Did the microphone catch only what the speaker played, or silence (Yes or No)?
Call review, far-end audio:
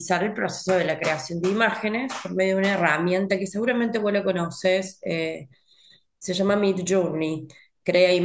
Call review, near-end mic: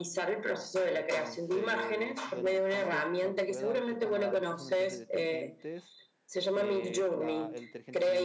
No